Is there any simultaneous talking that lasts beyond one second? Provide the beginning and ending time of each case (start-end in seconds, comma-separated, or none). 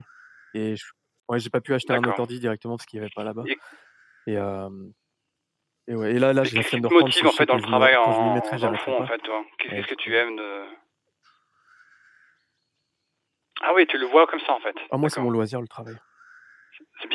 6.4-9.1